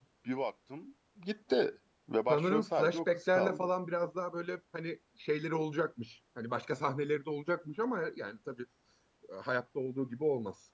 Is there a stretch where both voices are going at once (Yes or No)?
Yes